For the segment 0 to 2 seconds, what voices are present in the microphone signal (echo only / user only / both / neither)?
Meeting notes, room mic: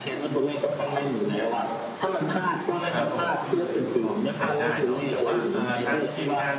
echo only